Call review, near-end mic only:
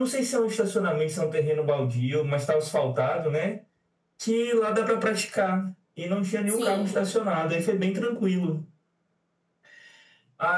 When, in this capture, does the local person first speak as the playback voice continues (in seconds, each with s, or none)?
6.4 s